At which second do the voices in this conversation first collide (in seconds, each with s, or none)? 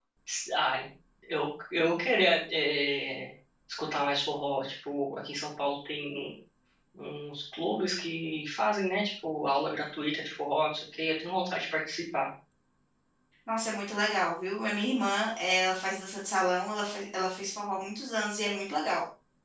none